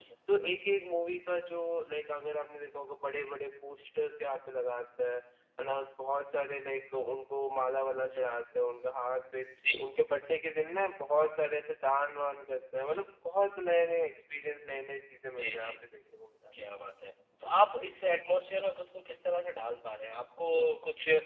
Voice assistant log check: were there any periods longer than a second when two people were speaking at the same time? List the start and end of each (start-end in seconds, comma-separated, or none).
none